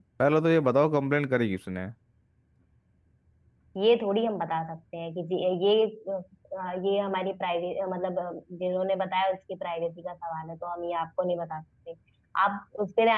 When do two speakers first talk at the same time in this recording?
none

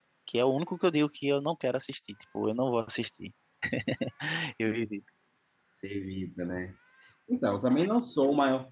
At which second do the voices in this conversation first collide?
none

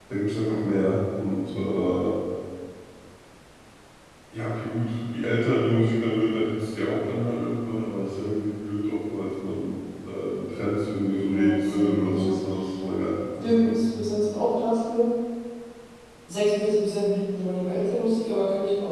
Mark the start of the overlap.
11.0 s

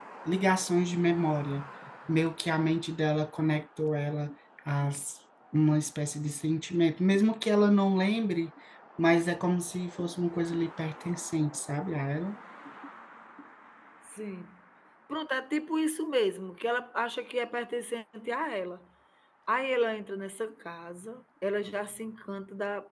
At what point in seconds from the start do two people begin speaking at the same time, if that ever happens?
none

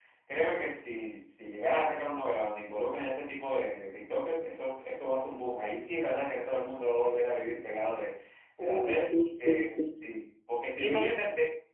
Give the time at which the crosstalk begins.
8.6 s

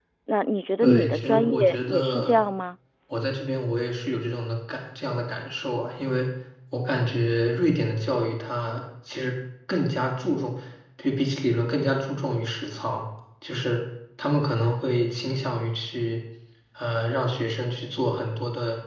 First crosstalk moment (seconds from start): 0.8 s

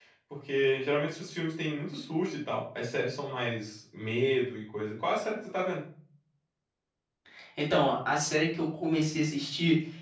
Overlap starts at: none

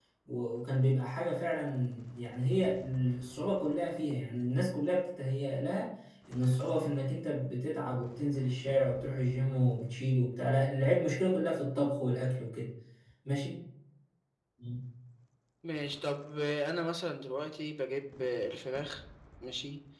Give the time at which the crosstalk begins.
none

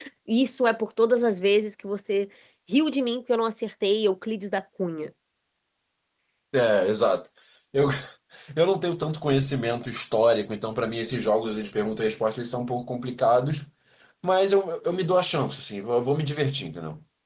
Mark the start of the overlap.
none

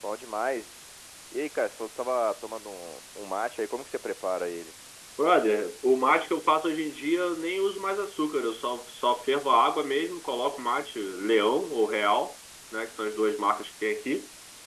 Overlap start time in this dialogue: none

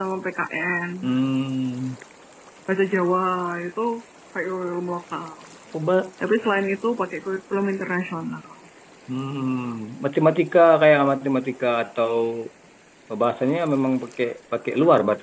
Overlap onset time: none

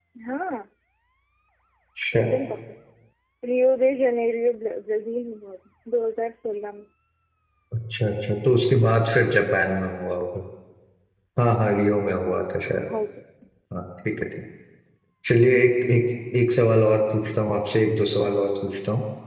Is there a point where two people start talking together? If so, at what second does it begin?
none

